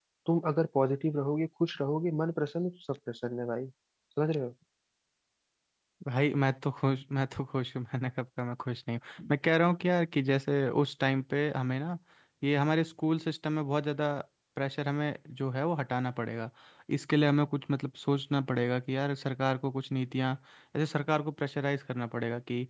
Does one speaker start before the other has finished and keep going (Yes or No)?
No